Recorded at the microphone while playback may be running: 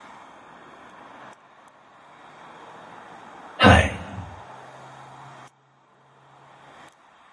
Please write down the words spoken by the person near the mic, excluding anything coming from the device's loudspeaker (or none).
はい。